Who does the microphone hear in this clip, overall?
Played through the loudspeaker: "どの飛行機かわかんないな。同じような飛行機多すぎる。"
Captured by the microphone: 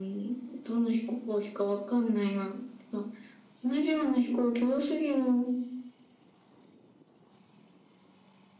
echo only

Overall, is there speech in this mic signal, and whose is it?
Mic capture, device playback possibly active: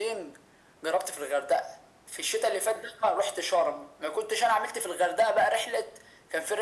echo only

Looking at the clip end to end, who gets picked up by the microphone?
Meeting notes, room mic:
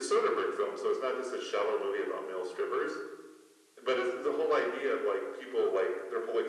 echo only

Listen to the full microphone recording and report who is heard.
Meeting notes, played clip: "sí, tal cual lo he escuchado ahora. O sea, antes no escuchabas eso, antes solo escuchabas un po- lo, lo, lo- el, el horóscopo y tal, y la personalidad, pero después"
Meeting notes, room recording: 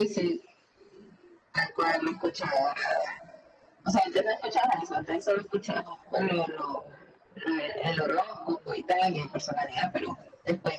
echo only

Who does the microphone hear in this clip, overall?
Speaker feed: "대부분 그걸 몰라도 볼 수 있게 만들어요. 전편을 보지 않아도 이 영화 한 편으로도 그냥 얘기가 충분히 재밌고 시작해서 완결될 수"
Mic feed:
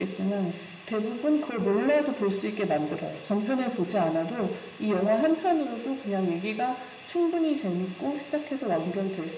echo only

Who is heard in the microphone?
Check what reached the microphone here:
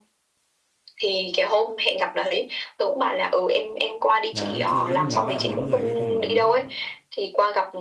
both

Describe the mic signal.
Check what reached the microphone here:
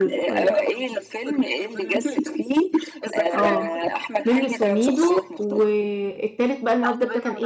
both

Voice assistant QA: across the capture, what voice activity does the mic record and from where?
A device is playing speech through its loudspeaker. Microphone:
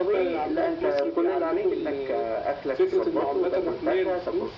echo only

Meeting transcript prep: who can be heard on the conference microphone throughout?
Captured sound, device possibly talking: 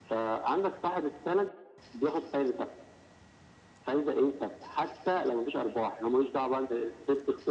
echo only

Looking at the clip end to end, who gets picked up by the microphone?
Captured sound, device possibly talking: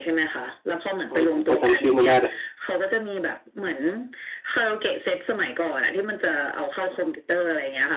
both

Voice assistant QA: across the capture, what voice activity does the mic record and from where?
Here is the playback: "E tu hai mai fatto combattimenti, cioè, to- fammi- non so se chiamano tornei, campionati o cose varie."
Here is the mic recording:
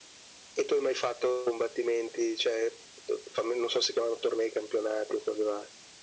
echo only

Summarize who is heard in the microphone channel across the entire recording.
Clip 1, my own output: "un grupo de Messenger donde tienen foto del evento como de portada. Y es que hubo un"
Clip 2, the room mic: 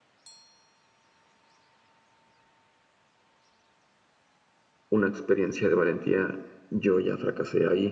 user only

